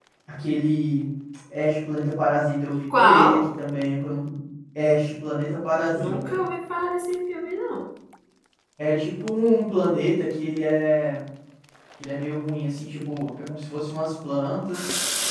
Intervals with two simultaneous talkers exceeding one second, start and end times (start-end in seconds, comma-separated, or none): none